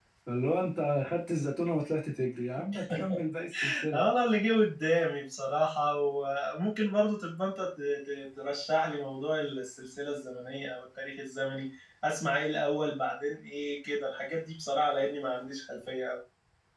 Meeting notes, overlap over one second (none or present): none